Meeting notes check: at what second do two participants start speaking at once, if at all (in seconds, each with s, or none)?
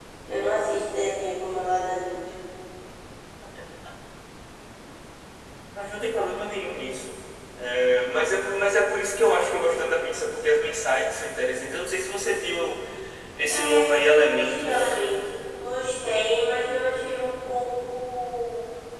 13.5 s